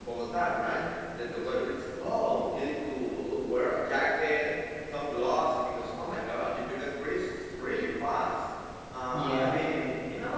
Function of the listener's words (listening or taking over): listening